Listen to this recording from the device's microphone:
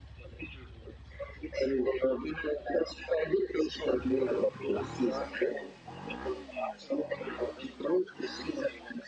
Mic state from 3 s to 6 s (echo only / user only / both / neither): echo only